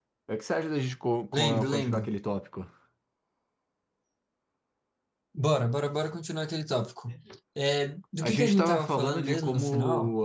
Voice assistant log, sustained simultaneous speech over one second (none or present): present